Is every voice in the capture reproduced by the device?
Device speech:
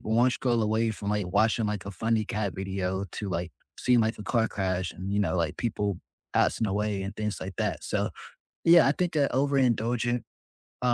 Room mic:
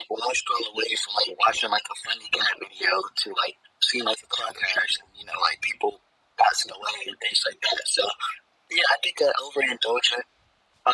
Yes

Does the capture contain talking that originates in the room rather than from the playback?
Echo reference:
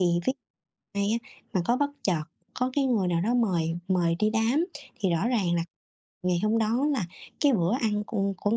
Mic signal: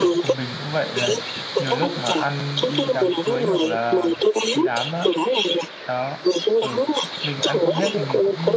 Yes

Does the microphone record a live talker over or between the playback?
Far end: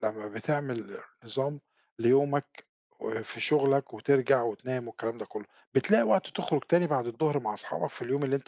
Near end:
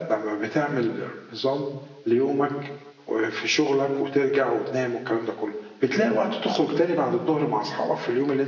No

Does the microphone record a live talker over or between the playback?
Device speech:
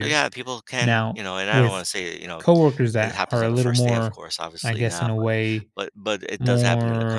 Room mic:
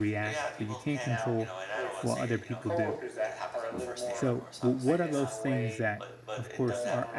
Yes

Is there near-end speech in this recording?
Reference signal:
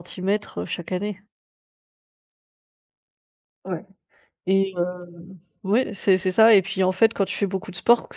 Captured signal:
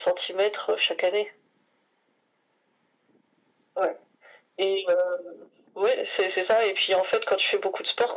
No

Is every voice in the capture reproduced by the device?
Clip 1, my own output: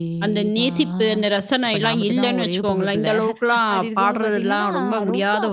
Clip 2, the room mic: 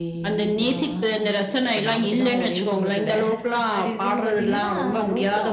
Yes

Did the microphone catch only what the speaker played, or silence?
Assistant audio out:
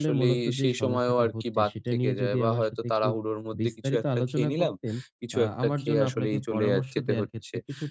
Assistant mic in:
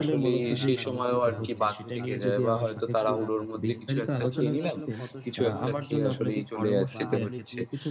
No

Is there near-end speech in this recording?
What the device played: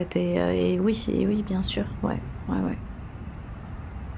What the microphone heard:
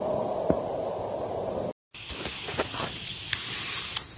No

